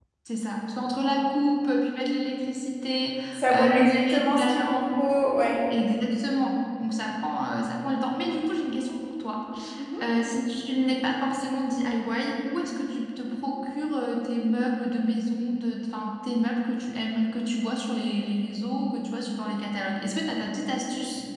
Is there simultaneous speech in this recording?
Yes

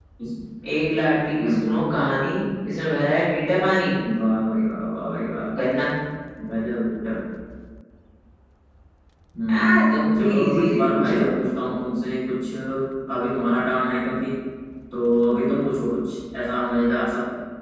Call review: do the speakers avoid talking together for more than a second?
No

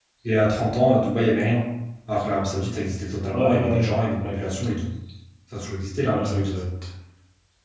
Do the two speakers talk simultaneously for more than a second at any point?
Yes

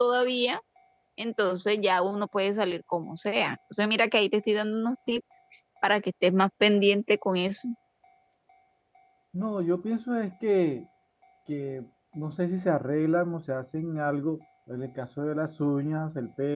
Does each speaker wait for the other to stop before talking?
Yes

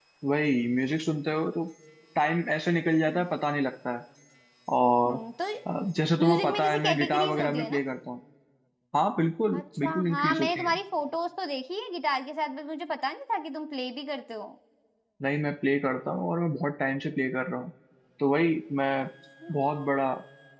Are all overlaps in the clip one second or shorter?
No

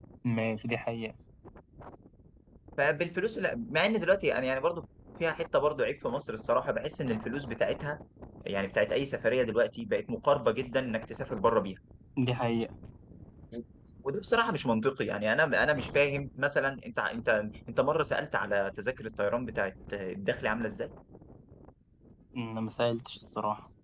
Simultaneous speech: No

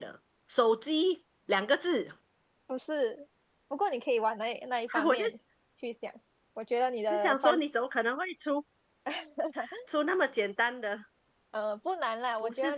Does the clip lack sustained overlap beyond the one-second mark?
Yes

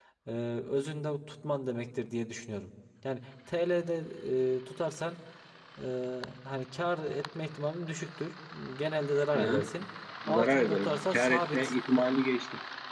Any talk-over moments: Yes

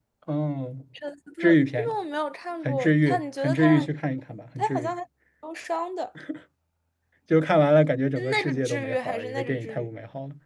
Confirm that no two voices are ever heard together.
No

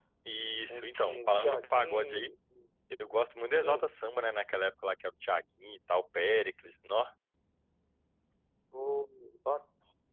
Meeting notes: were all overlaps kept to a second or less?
No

